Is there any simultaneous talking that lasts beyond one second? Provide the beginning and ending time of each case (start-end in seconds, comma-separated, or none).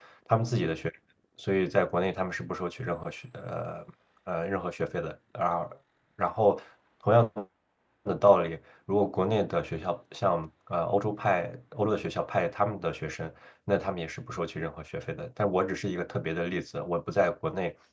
none